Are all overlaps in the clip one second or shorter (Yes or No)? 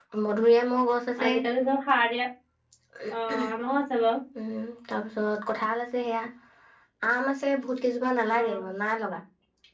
Yes